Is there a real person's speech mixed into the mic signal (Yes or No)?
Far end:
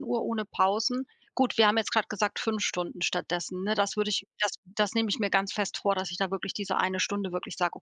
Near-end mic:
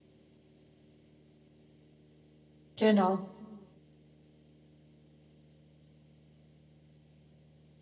Yes